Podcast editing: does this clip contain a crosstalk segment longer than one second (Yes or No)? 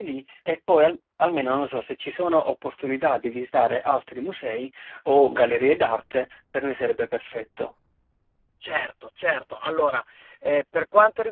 No